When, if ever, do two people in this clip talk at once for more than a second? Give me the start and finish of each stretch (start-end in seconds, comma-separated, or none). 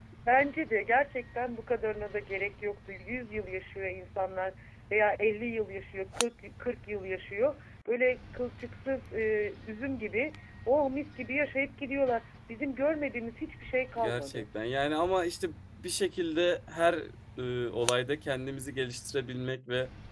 none